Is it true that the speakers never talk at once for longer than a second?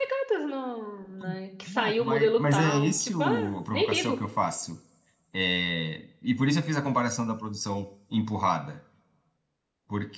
No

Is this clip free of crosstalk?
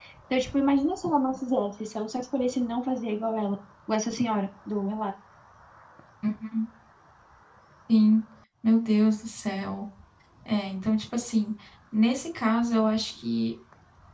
Yes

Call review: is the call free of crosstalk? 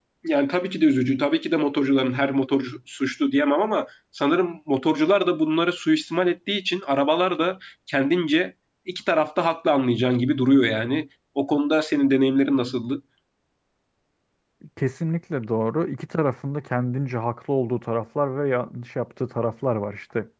Yes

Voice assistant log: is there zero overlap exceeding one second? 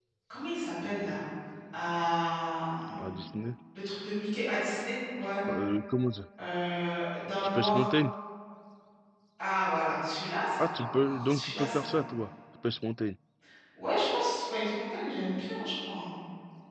No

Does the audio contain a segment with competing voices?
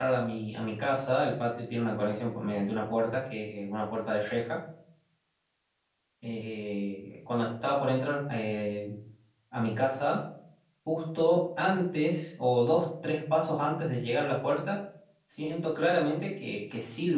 No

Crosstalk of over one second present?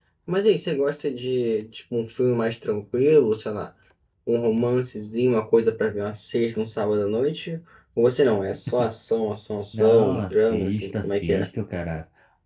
Yes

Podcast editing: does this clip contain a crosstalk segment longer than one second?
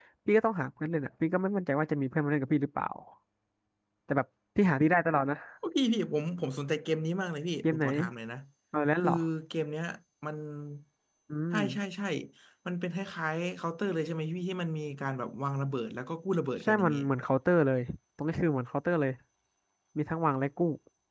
No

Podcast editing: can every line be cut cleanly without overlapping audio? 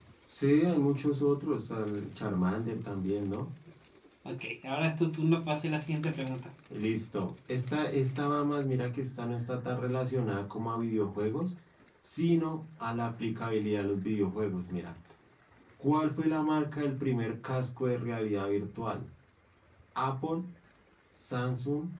Yes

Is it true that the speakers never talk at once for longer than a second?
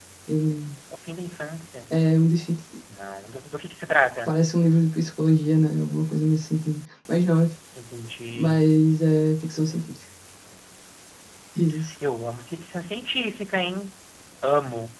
Yes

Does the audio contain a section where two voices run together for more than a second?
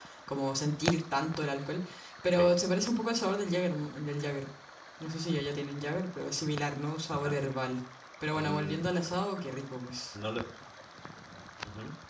No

